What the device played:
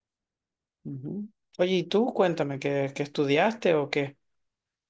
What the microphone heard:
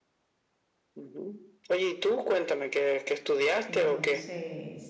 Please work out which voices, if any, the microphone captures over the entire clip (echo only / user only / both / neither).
both